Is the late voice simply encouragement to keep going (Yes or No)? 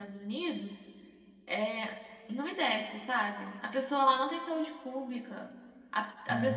Yes